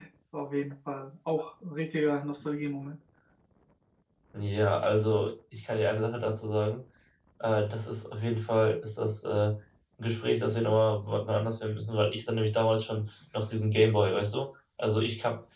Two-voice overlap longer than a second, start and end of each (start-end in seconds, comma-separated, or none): none